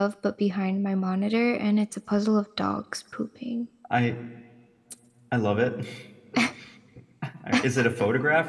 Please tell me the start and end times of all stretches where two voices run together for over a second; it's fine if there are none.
none

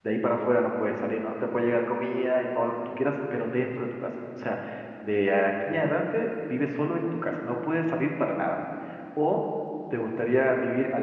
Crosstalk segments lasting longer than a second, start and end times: none

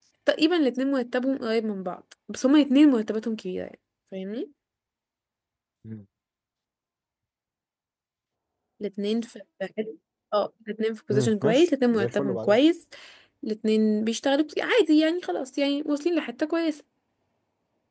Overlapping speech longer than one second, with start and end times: 11.1-12.6

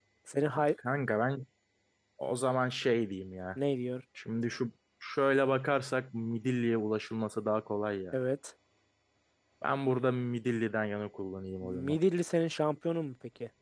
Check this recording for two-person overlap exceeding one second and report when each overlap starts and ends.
none

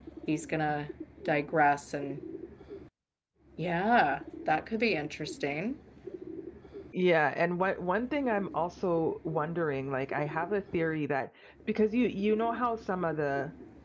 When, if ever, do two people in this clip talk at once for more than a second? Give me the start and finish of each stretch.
none

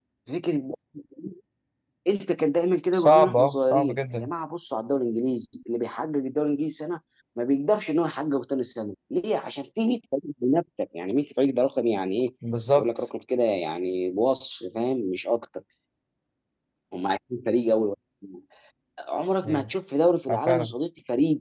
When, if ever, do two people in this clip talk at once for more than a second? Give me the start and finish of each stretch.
2.9-4.3

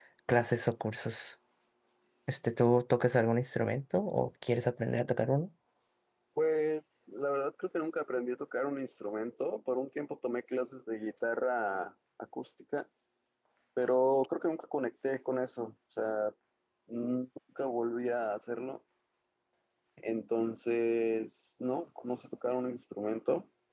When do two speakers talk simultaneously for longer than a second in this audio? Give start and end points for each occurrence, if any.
none

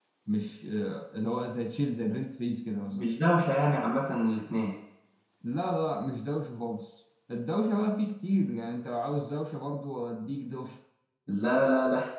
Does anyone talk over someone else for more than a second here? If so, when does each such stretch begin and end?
none

